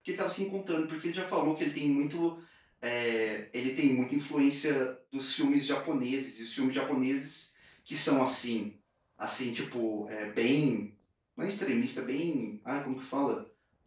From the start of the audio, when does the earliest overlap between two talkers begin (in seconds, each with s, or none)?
none